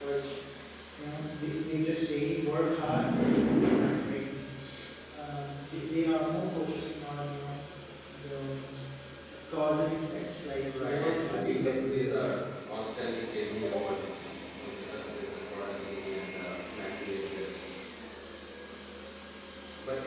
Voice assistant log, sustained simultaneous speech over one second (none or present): present